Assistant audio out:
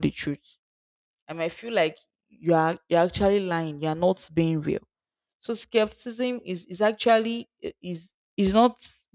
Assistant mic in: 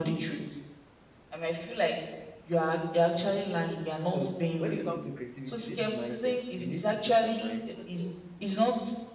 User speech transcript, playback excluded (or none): So when it comes to creativity, this is mindset. You need to put your mind at work.